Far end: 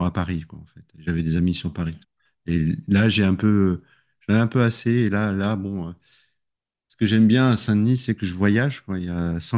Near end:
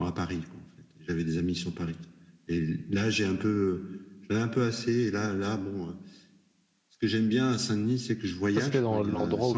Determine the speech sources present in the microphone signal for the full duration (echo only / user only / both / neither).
both